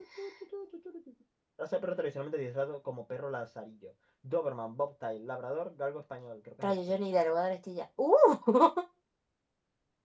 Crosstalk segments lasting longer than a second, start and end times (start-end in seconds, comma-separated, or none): none